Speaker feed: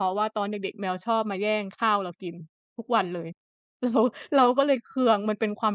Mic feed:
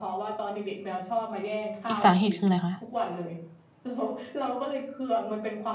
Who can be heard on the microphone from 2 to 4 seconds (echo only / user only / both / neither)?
both